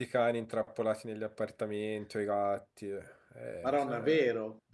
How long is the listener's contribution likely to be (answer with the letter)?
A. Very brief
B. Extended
B